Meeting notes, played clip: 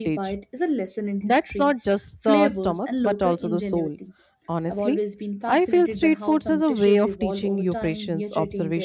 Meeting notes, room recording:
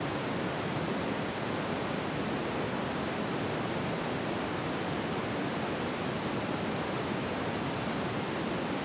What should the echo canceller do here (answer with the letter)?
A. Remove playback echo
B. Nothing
B